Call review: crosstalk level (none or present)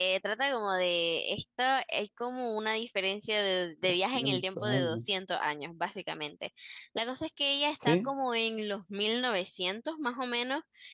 present